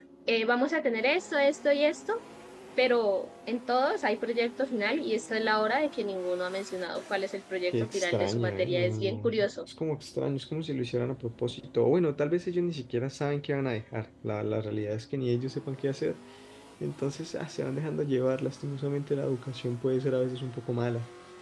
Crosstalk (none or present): present